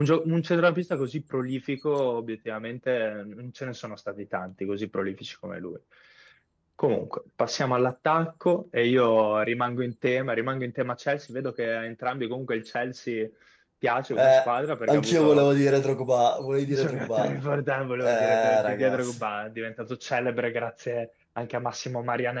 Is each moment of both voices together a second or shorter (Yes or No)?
No